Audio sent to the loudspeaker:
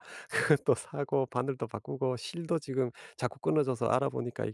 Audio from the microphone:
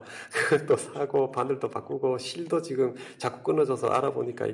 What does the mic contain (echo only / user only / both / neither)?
echo only